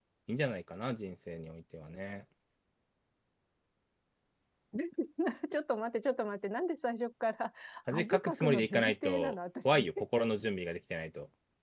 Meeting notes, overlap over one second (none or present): present